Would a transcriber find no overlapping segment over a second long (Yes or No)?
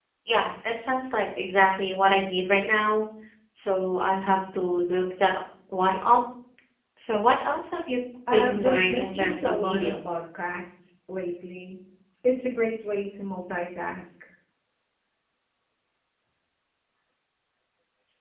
No